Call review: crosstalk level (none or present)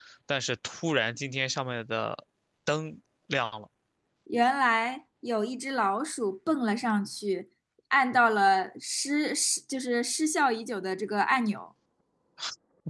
none